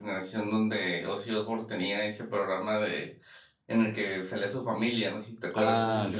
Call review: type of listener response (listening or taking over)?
taking over